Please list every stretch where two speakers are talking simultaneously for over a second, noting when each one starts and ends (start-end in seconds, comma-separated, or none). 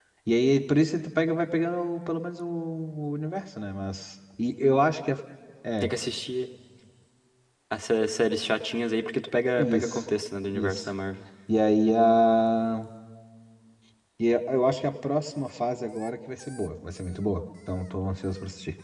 none